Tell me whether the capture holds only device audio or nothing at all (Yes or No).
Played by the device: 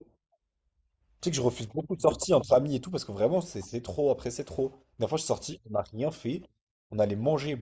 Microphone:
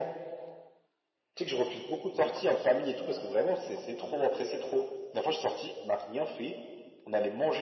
Yes